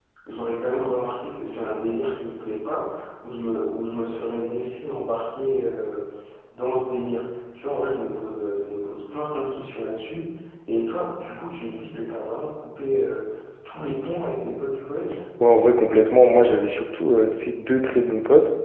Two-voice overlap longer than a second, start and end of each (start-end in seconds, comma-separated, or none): none